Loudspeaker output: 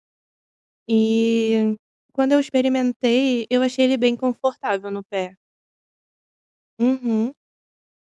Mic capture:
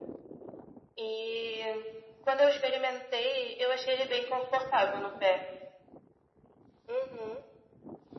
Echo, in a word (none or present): present